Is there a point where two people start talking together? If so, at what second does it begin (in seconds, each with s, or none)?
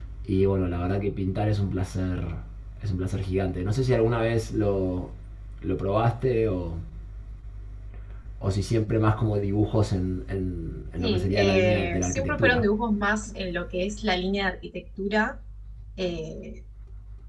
11.0 s